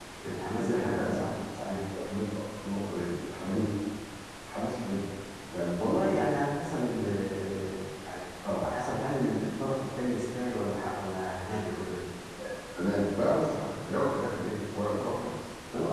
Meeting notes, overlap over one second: present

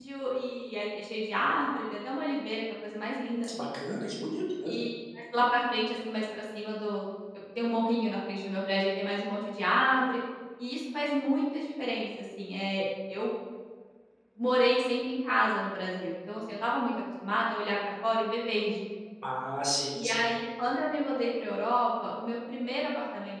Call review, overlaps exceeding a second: none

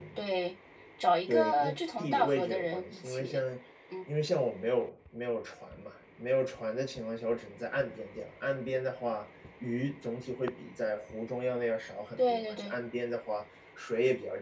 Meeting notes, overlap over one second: present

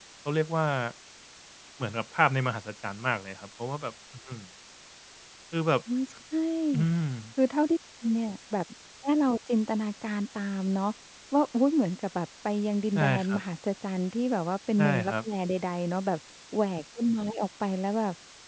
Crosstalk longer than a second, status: none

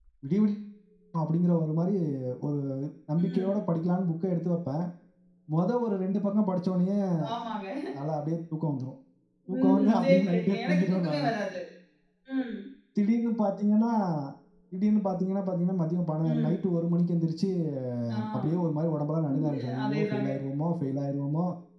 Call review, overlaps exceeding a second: present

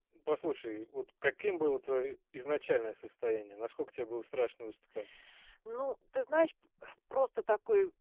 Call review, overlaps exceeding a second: none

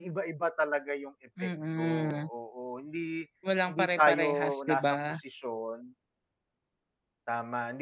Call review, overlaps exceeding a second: present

